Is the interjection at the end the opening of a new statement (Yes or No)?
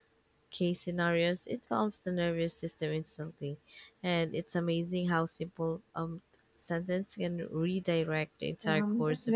Yes